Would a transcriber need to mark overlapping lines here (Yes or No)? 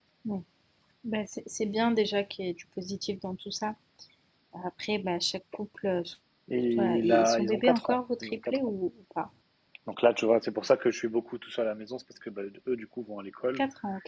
Yes